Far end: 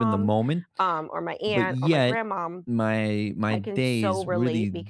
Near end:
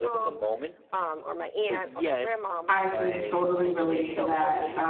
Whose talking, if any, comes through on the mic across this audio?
both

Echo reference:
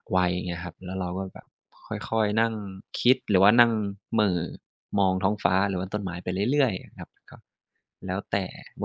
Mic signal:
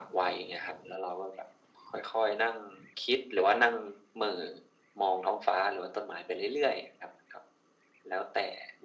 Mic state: echo only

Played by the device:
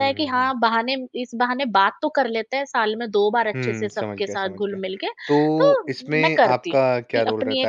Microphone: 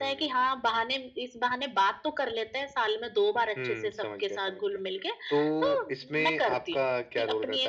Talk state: echo only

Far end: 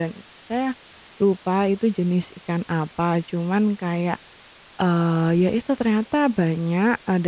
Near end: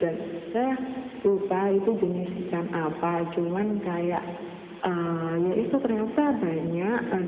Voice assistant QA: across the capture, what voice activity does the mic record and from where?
echo only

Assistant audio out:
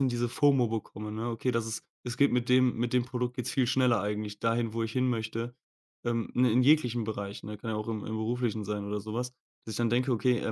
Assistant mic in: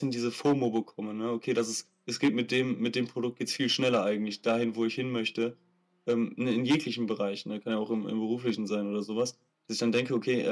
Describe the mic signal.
echo only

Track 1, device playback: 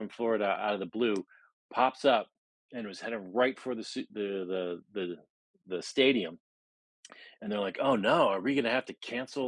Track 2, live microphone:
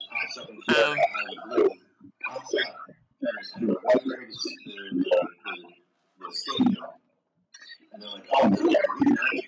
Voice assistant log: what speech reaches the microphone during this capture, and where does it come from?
both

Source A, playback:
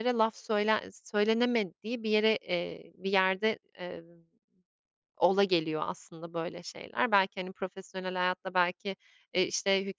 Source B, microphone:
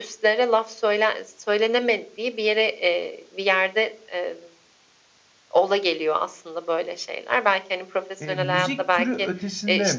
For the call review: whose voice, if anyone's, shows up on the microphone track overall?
both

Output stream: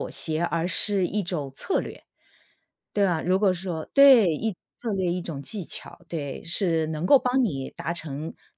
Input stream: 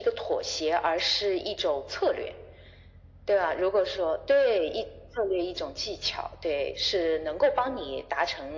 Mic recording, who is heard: echo only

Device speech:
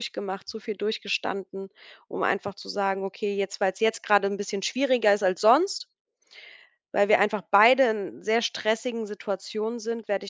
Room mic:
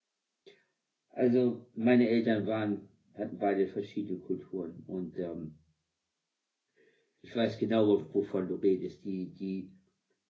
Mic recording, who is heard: user only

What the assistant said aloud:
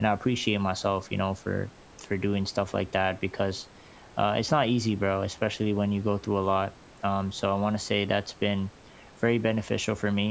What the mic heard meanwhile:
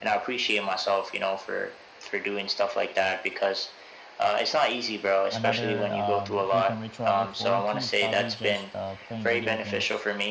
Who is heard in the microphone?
both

